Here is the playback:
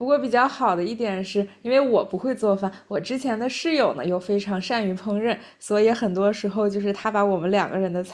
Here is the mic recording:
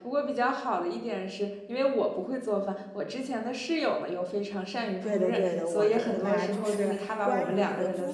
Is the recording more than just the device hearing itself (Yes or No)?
Yes